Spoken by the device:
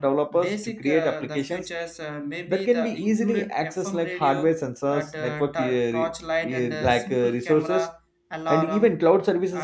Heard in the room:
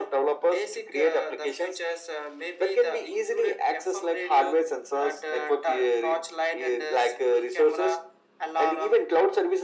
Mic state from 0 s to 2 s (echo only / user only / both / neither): echo only